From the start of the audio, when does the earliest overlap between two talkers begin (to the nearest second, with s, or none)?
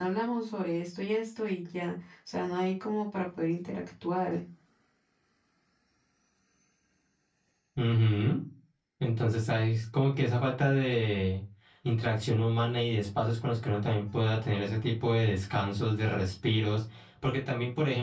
none